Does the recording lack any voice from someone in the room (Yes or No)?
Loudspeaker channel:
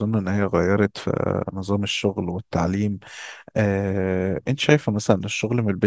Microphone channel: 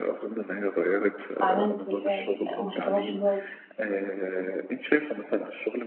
No